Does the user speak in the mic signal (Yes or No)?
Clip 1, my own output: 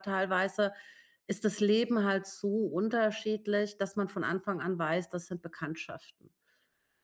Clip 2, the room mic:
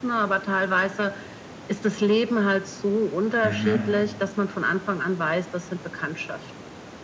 Yes